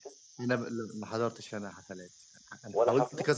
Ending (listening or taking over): listening